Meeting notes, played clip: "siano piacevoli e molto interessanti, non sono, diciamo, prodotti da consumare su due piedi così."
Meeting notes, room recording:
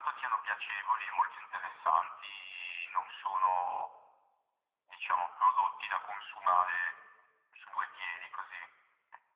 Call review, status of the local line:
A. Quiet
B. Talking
A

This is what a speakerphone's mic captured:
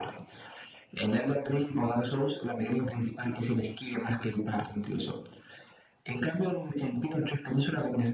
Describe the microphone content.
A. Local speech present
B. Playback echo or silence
B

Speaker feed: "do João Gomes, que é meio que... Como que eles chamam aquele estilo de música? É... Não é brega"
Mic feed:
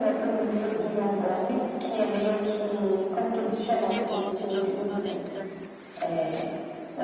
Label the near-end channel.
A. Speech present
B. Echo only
A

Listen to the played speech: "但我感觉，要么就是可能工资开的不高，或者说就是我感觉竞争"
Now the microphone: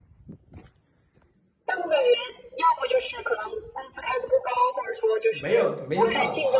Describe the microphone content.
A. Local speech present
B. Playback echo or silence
A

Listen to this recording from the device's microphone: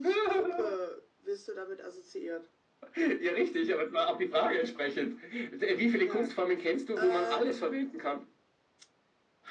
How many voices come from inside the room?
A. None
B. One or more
A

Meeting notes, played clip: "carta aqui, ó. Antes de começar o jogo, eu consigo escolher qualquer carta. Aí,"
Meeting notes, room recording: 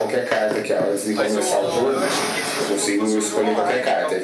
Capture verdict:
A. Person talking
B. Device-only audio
A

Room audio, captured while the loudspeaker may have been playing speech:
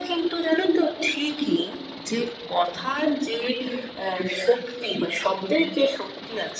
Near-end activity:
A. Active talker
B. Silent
B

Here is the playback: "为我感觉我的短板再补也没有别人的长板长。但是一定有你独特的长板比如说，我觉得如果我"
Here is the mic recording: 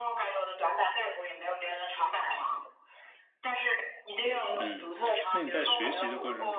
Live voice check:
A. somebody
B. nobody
A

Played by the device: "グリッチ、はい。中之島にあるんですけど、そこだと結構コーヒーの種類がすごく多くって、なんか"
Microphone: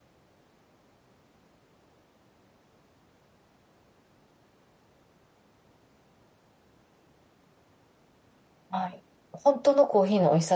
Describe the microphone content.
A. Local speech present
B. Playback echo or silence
A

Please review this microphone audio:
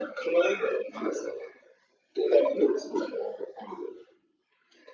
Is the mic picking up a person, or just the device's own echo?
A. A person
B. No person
B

